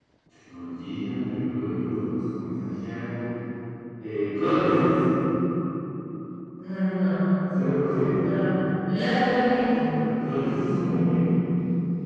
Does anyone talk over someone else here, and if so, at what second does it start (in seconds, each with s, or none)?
none